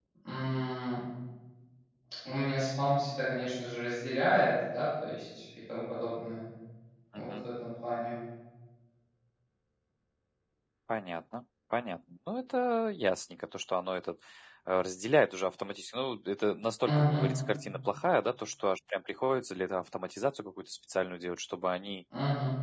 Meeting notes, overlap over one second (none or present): none